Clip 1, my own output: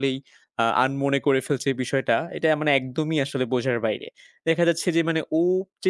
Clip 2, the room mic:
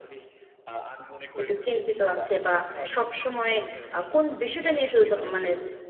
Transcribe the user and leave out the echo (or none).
একটু চিন্তিত আছে বা সবসময় আ কোন বিষয়টা নিয়ে শুধু দ মানে